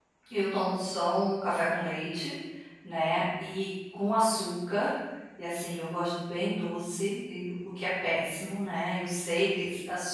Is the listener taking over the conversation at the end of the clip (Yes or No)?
No